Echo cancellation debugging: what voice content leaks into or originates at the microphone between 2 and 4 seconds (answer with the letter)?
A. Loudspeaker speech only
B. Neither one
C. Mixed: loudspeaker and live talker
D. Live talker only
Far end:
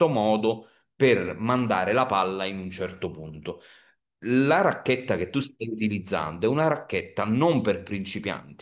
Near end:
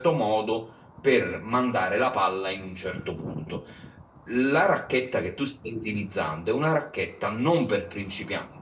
A